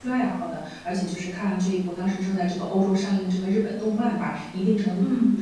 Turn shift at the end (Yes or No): No